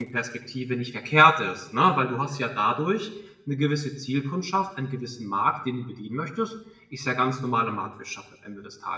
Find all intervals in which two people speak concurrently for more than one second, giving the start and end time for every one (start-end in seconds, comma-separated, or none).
none